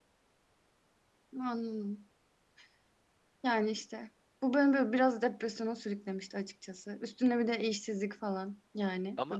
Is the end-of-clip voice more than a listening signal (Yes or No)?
No